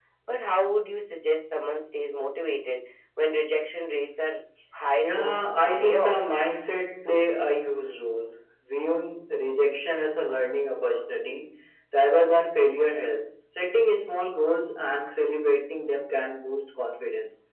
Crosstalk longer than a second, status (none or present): present